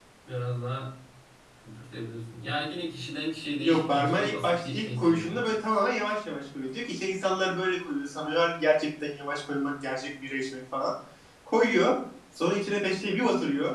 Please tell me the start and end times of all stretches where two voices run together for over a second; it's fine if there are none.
3.6-5.3

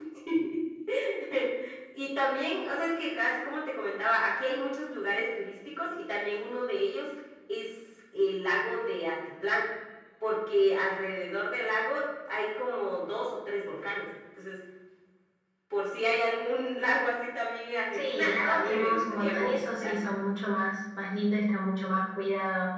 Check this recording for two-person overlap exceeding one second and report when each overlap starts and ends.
17.9-20.0

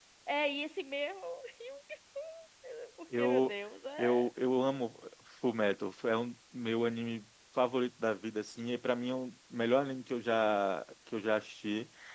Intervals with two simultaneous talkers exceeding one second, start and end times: none

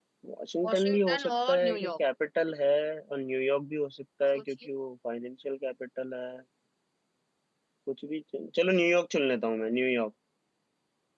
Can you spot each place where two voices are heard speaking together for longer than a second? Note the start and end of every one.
0.7-1.9

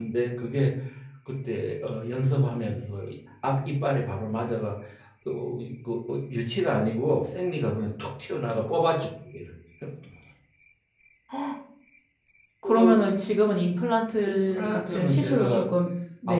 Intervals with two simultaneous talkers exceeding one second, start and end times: 14.3-15.6

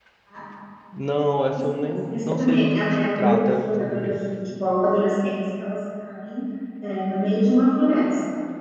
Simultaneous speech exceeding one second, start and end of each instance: 1.6-4.2

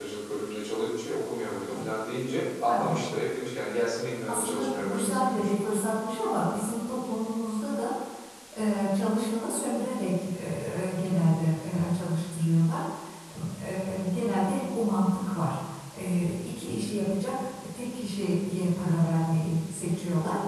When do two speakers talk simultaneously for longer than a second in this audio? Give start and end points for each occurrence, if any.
4.3-5.5

